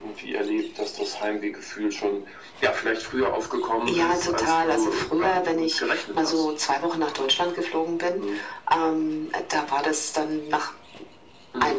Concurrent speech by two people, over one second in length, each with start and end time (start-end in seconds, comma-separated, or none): 3.9-6.5